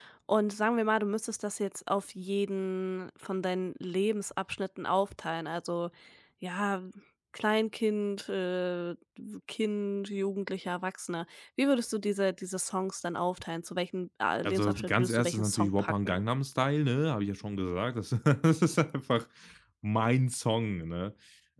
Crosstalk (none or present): present